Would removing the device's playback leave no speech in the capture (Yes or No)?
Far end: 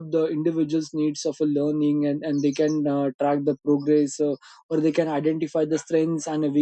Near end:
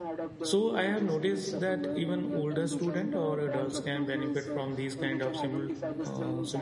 No